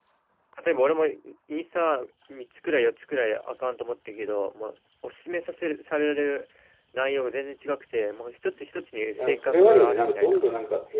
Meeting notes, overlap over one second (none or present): present